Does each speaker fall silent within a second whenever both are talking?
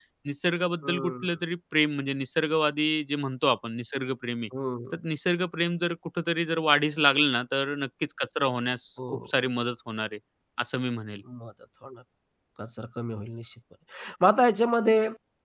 Yes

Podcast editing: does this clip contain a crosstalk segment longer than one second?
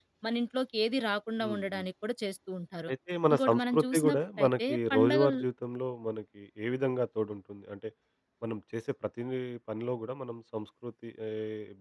Yes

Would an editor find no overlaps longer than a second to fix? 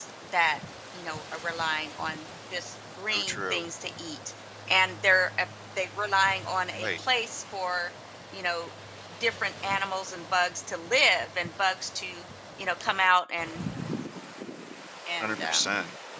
Yes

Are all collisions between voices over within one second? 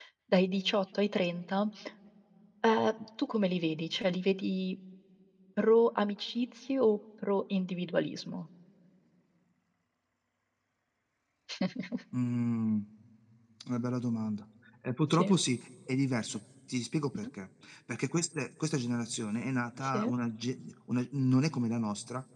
Yes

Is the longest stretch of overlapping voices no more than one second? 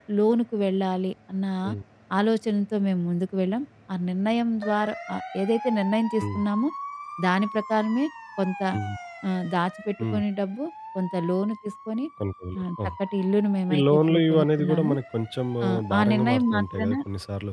No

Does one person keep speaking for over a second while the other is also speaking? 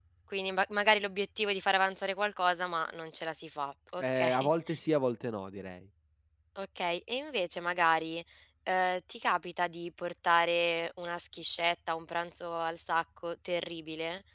No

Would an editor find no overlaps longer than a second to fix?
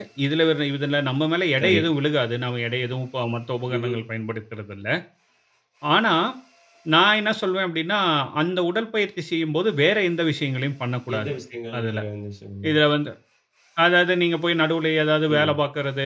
Yes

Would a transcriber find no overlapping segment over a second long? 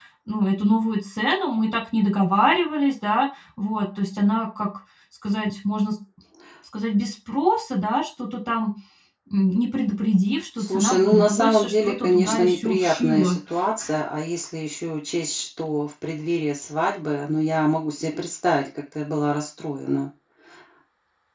No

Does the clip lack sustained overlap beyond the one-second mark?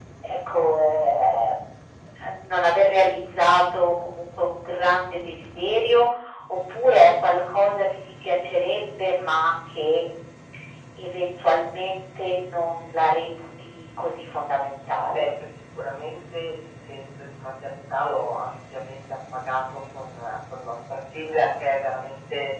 Yes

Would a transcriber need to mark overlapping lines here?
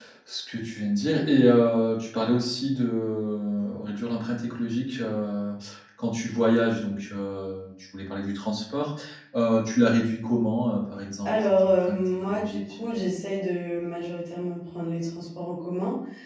Yes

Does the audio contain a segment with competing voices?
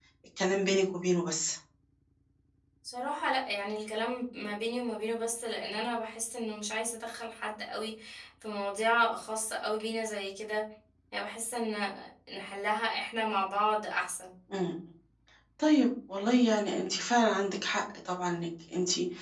No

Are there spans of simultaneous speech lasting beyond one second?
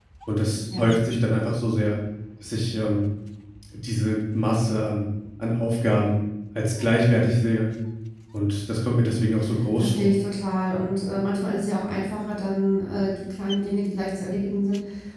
No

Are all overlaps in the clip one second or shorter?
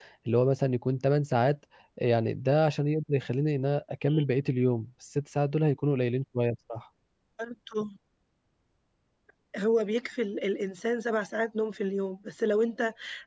Yes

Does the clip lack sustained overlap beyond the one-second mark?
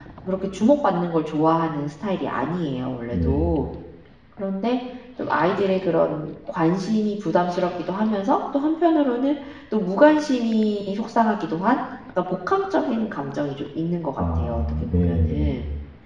No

